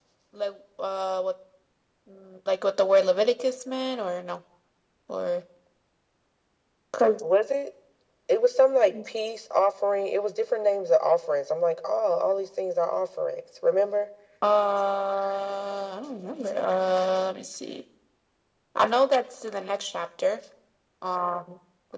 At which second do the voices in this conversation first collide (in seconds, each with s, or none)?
none